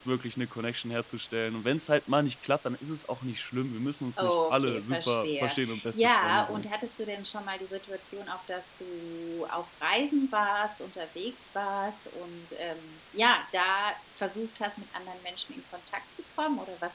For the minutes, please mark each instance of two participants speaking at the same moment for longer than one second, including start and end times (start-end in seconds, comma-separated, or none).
4.2-6.7